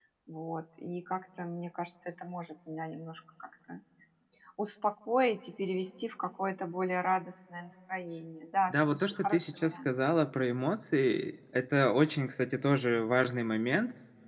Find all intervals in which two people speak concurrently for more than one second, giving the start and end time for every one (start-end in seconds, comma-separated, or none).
8.7-9.9